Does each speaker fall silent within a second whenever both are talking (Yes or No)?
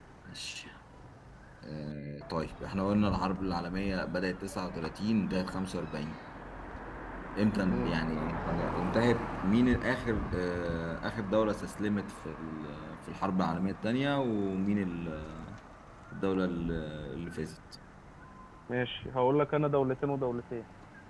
Yes